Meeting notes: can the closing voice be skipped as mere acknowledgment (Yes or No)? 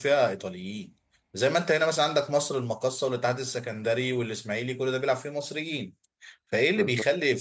Yes